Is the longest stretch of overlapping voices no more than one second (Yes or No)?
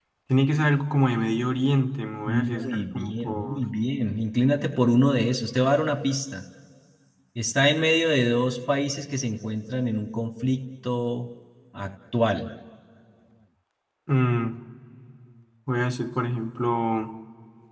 No